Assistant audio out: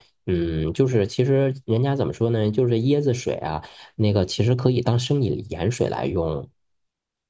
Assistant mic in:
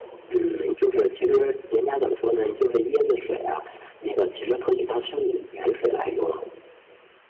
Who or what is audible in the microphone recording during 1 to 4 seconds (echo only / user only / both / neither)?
echo only